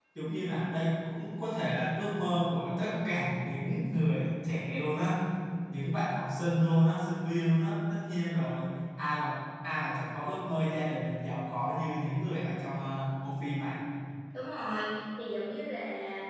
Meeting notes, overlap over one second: none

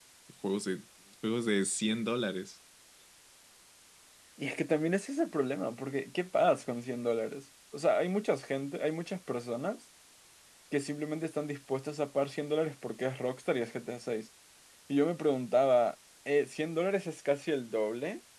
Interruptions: none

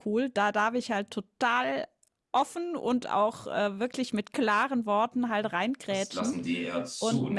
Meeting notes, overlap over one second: none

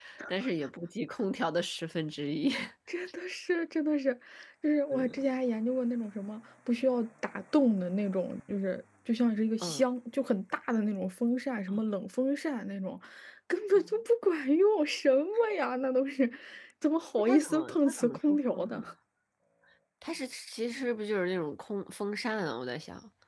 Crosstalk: present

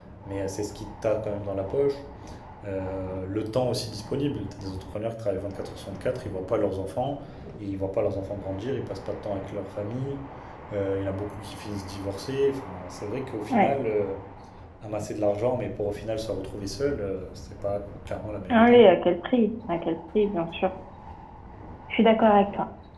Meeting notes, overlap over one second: none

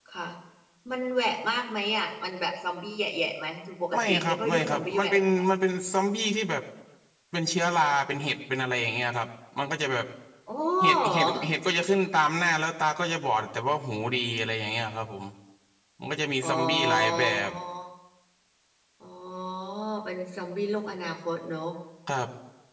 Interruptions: present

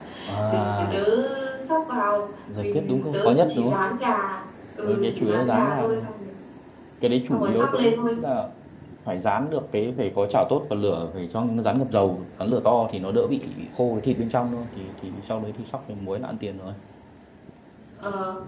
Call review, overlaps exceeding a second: present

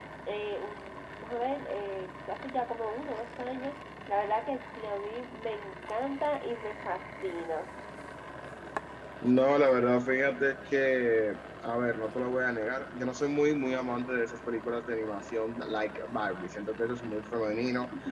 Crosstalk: none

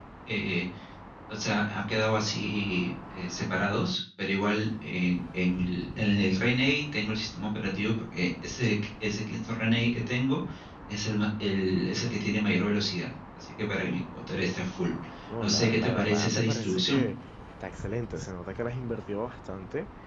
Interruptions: present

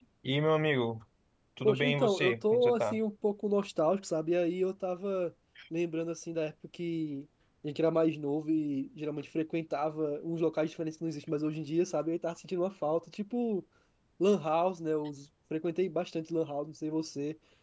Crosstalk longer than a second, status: present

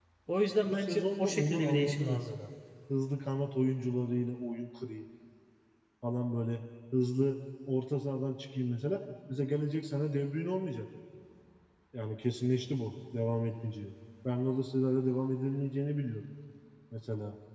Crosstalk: present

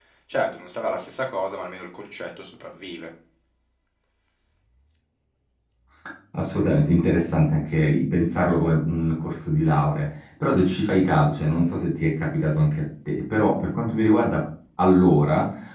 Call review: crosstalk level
none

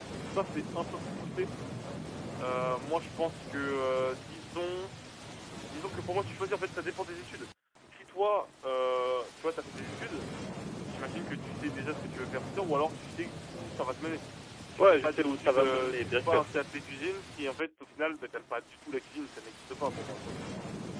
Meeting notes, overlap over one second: present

